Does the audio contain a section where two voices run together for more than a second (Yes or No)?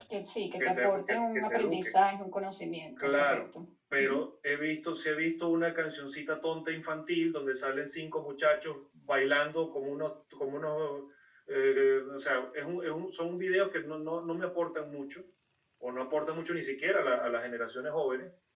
Yes